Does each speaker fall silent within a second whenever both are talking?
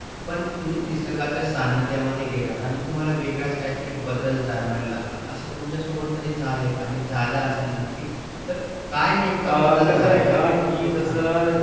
No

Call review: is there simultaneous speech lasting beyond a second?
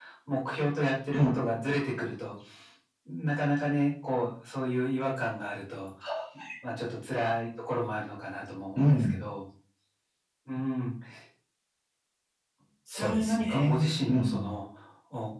Yes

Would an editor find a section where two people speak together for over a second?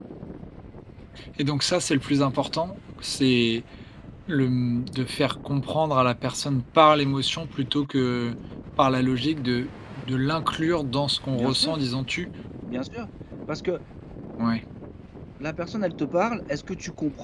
No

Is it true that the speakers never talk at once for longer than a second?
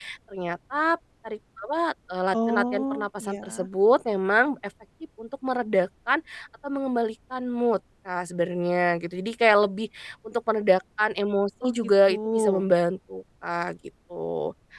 No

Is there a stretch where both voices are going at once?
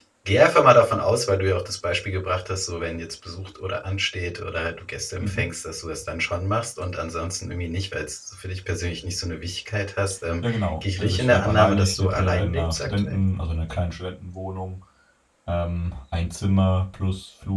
Yes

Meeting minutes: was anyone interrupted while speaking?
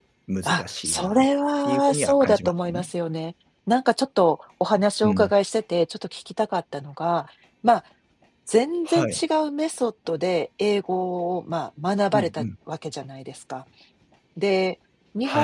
Yes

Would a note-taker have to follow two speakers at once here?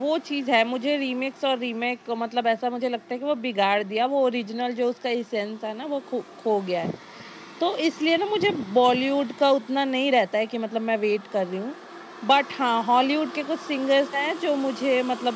No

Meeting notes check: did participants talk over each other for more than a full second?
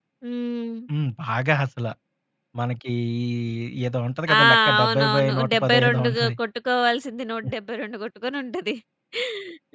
Yes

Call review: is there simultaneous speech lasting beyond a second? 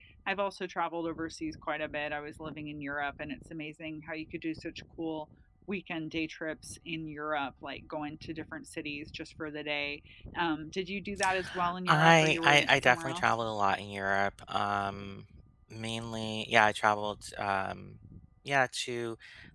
Yes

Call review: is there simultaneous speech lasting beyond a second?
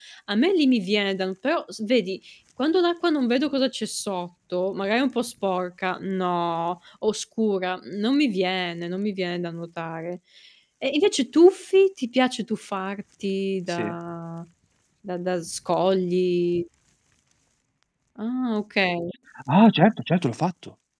No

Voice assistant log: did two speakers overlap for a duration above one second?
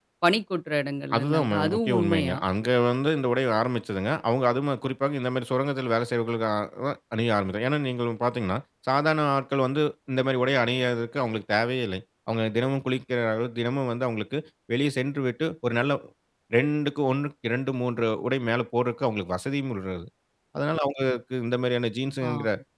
Yes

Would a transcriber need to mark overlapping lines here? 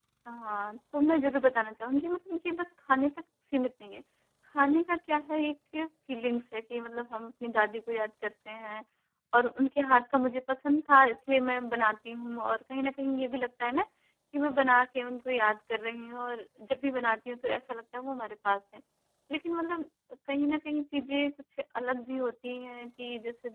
No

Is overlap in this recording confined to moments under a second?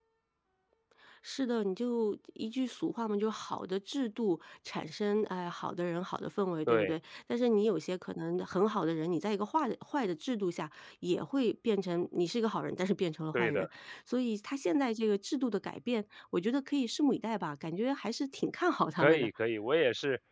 Yes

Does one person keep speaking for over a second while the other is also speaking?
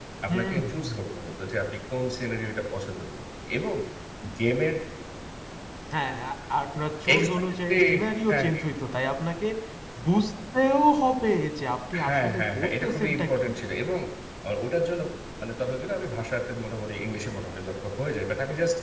Yes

